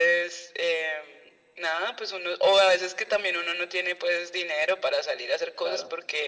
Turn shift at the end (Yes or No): No